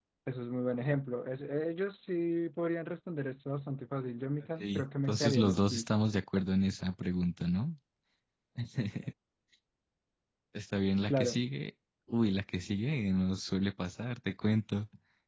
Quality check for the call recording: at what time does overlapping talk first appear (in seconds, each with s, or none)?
4.6 s